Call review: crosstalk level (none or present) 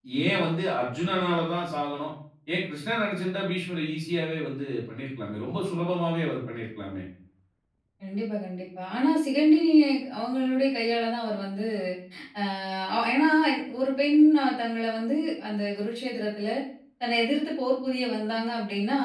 none